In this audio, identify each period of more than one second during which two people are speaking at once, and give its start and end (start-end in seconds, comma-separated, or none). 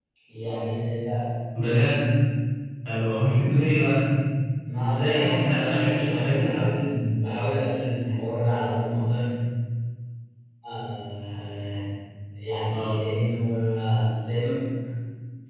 4.8-6.4